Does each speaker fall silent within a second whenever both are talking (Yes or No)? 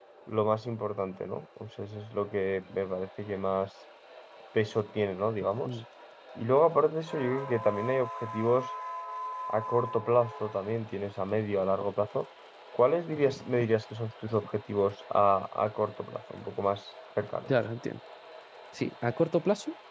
Yes